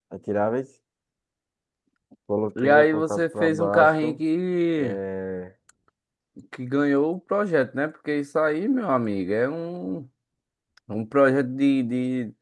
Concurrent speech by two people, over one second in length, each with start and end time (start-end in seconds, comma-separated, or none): 2.6-4.2